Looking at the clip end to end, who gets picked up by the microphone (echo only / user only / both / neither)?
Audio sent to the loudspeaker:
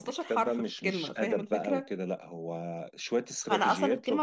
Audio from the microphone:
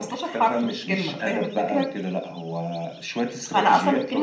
echo only